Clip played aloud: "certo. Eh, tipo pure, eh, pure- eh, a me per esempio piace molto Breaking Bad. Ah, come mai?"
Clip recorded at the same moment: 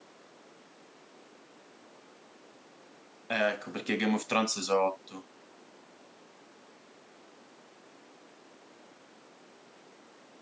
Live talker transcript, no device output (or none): eh, ecco perché Game of Thrones sono otto,